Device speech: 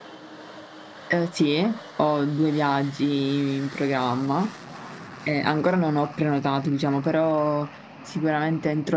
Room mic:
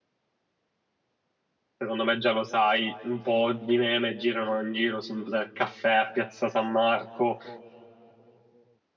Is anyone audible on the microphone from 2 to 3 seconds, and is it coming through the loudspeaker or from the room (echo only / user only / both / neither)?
user only